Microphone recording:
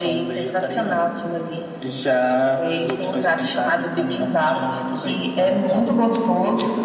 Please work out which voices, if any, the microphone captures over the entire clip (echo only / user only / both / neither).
echo only